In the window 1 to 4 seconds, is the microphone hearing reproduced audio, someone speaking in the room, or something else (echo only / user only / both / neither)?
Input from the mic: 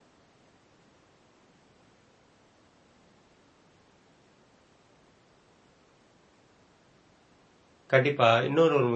neither